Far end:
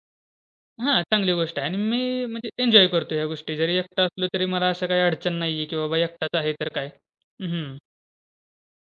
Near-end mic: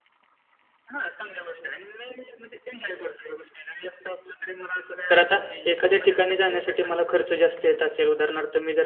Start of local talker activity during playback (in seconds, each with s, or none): 5.1 s